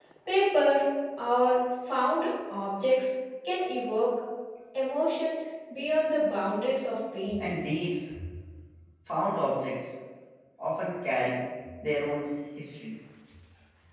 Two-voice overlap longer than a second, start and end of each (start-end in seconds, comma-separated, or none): none